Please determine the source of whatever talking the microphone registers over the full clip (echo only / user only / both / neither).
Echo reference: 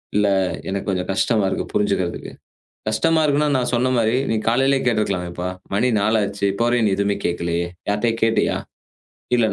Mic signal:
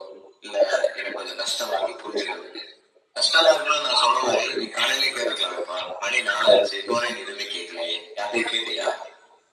echo only